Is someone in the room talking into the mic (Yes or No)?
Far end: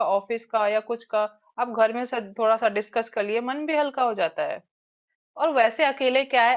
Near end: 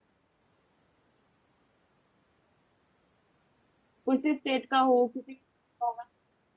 Yes